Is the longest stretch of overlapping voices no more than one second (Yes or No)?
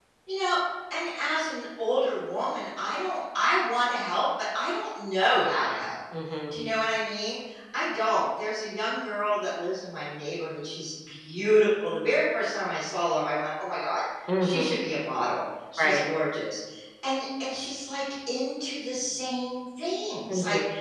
Yes